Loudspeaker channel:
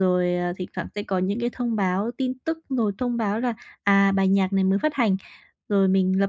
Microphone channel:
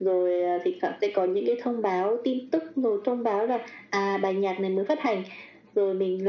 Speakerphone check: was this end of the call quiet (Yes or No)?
Yes